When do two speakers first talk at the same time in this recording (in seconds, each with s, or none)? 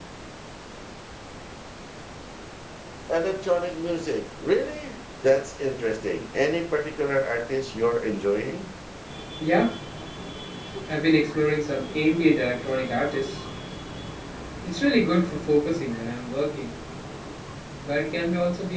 none